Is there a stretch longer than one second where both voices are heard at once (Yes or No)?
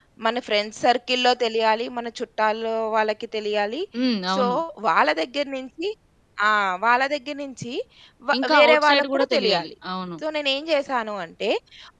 Yes